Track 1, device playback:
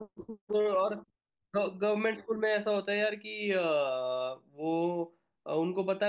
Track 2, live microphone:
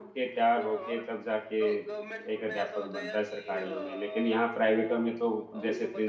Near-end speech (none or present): present